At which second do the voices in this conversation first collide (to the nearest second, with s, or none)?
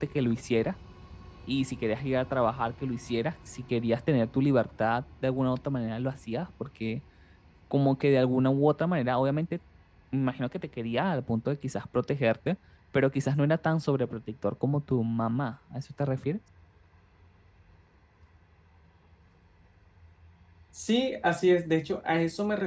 none